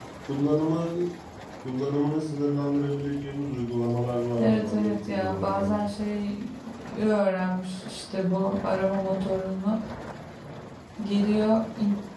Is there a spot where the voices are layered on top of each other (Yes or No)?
Yes